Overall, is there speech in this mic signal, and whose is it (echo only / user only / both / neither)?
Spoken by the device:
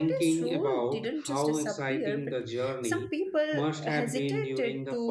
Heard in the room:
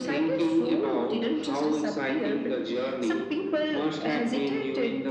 echo only